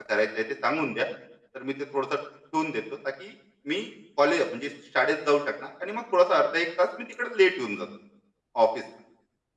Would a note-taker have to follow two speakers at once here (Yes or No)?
No